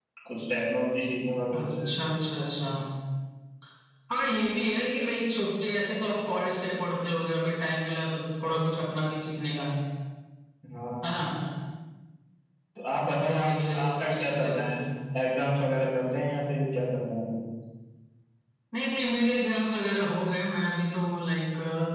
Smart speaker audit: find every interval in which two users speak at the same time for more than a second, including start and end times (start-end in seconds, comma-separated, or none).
13.1-14.8